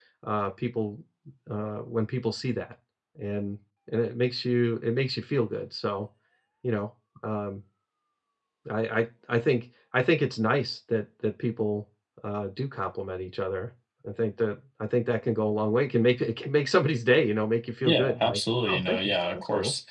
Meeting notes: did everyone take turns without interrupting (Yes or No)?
No